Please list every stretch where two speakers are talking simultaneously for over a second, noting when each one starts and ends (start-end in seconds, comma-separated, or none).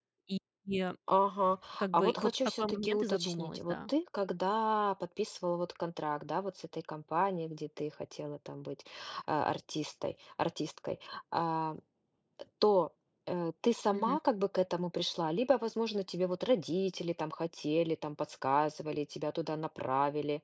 1.9-3.8